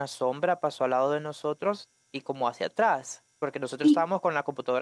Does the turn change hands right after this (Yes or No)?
No